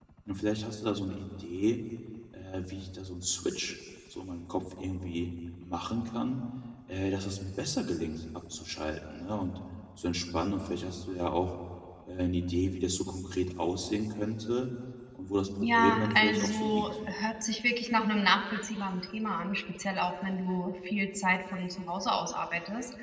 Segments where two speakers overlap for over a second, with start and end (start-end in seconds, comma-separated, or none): 15.6-16.9